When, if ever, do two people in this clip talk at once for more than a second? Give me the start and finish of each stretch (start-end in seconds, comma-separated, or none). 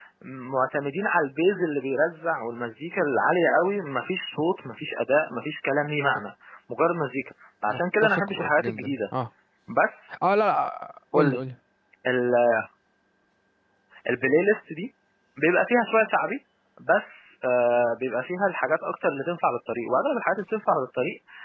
7.7-9.0